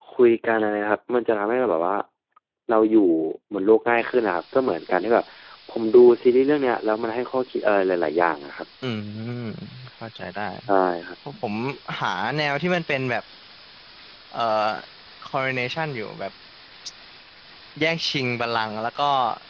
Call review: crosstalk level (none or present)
none